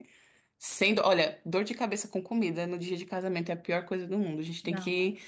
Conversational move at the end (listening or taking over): listening